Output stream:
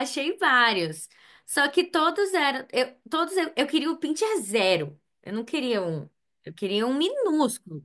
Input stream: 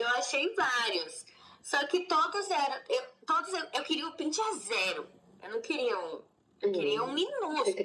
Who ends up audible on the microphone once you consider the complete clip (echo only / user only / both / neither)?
both